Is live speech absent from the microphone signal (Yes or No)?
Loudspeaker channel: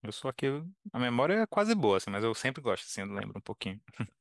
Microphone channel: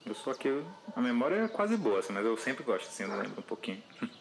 Yes